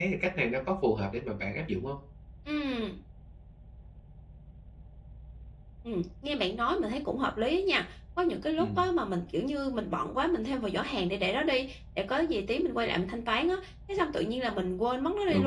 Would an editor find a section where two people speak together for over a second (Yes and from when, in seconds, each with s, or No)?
No